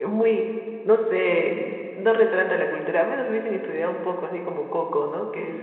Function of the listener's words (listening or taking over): taking over